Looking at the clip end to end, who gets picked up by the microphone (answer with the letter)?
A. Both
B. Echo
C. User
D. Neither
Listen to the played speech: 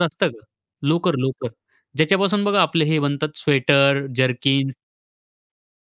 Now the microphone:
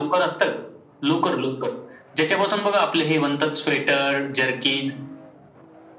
B